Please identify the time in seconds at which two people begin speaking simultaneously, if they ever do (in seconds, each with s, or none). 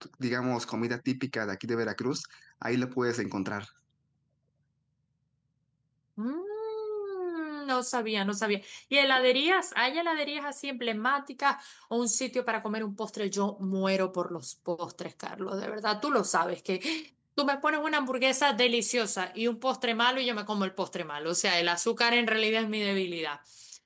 none